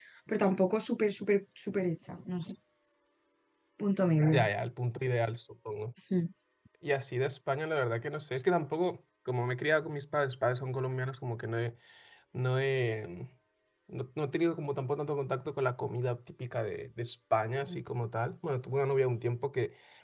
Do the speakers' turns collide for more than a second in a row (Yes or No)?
No